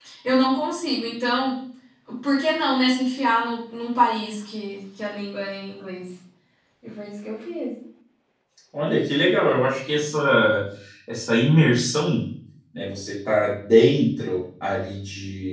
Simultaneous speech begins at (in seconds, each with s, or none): none